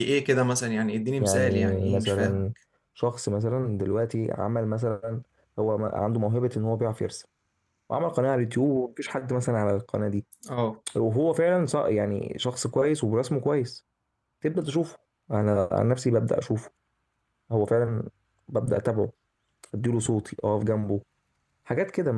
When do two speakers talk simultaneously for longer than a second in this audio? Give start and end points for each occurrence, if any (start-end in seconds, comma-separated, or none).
1.2-2.5